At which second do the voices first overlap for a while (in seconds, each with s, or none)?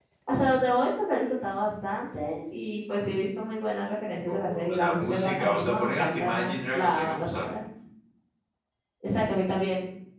4.3 s